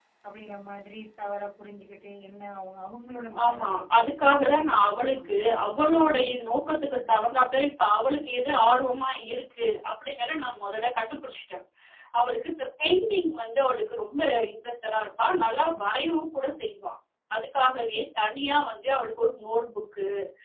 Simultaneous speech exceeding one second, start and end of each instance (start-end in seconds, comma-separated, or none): 3.4-5.9